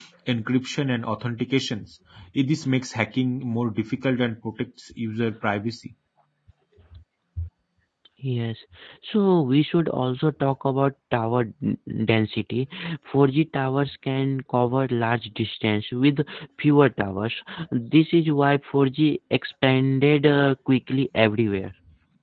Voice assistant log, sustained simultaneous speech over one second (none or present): none